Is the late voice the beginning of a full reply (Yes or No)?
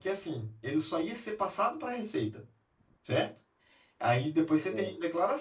No